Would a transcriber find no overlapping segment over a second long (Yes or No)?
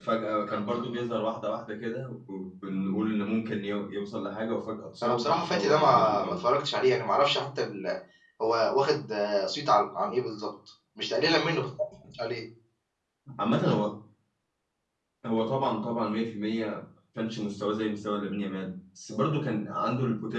No